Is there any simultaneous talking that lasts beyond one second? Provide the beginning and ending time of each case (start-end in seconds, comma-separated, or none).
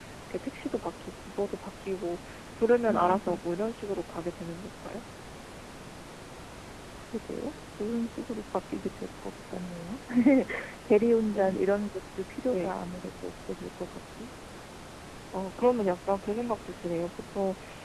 none